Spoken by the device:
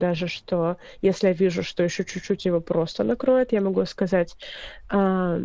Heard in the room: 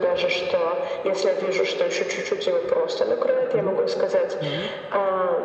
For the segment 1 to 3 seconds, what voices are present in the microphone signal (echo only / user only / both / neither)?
echo only